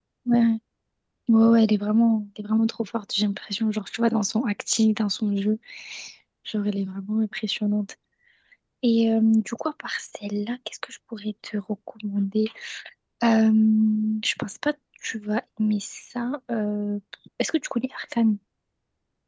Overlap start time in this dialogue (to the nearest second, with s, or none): none